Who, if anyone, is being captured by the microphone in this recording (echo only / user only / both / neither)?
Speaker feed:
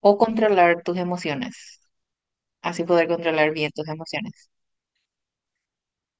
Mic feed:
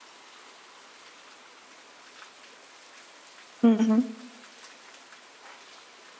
user only